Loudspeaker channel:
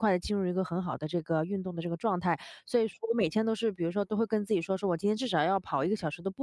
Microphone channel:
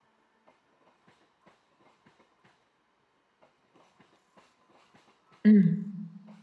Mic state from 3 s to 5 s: neither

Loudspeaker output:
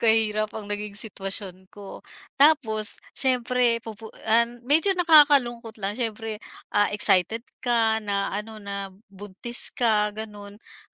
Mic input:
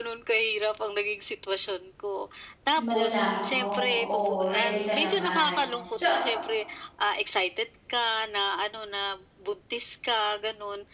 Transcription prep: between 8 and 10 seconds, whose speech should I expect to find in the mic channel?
echo only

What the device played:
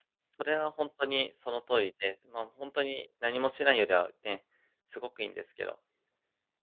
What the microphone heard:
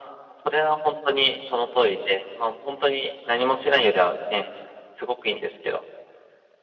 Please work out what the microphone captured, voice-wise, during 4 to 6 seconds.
echo only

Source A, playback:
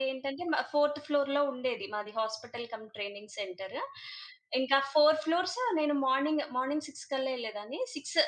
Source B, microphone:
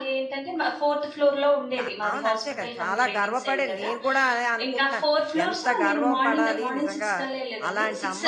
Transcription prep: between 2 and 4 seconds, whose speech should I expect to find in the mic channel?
both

